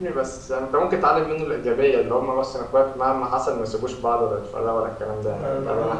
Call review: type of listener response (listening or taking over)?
taking over